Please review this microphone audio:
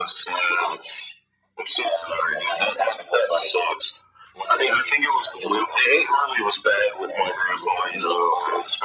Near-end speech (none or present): none